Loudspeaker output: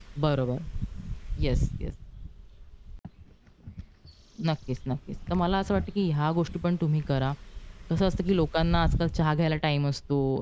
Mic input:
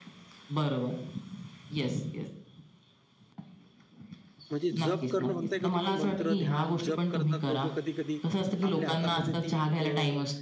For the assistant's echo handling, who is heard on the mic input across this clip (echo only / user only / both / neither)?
both